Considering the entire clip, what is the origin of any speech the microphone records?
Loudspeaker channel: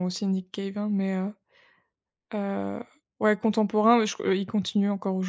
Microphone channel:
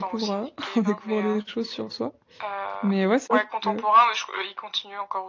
both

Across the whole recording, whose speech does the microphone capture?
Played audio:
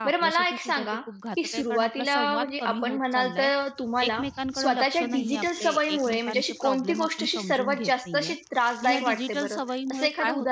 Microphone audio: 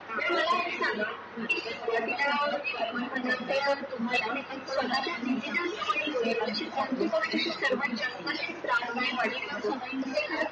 echo only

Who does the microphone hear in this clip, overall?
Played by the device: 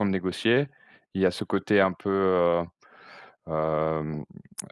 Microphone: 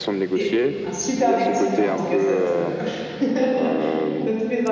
both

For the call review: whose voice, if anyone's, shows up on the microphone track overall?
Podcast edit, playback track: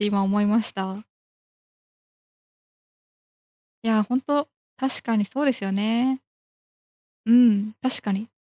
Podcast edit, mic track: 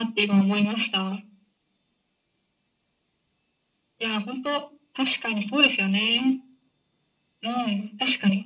echo only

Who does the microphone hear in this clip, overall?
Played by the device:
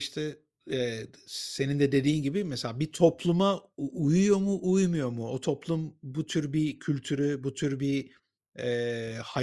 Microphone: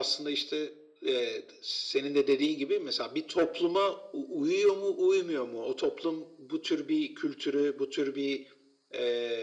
echo only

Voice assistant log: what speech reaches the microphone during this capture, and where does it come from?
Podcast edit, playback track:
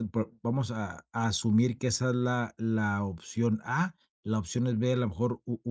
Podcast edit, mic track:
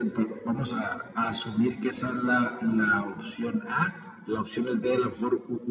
echo only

